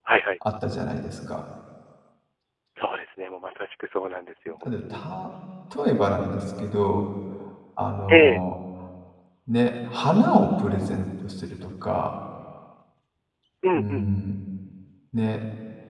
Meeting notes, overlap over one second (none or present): none